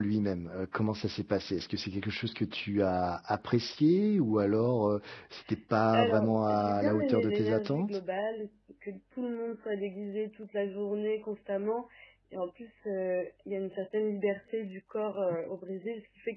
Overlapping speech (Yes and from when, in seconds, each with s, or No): Yes, from 5.9 s